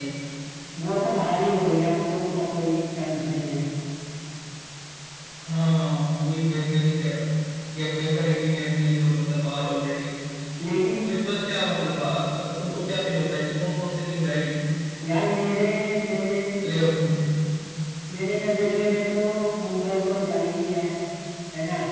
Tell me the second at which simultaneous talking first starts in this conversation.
none

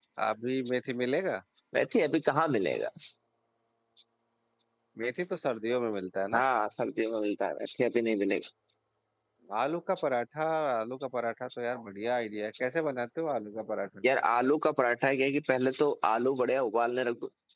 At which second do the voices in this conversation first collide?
none

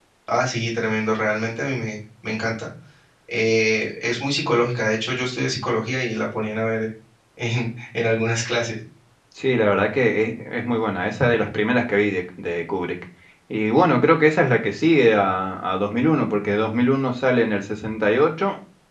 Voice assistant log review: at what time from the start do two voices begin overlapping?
none

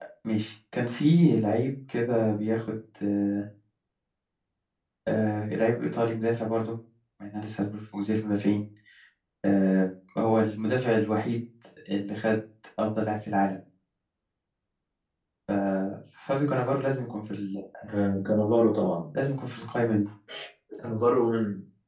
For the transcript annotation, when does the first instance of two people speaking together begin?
none

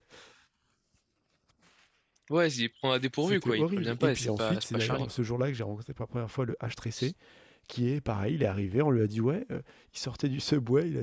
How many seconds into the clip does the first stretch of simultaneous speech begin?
3 s

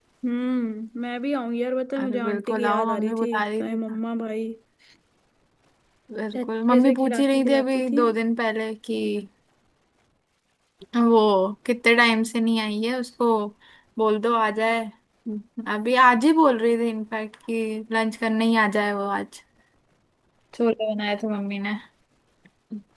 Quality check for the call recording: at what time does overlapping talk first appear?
2 s

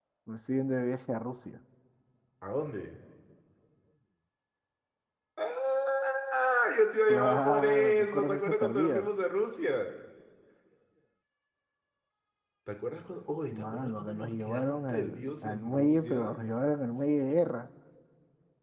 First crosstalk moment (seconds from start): 7 s

